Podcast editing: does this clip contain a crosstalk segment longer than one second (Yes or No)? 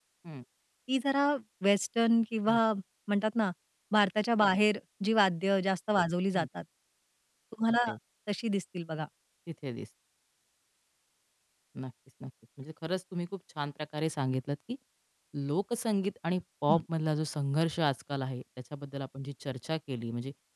No